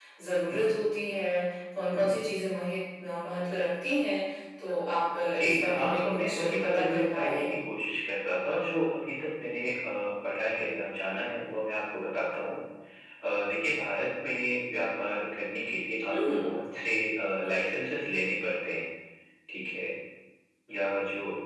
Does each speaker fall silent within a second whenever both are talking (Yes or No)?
No